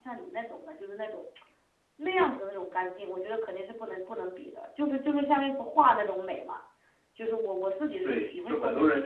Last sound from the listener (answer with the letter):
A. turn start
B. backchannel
A